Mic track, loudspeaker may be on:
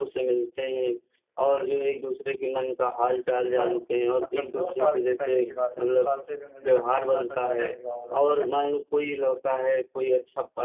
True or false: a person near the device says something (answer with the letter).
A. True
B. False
A